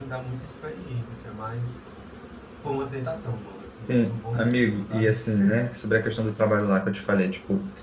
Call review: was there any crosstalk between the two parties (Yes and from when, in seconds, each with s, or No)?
Yes, from 3.9 s